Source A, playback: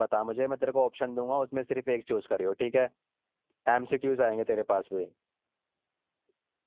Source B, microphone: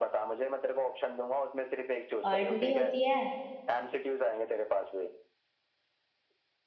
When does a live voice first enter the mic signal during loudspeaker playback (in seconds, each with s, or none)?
2.3 s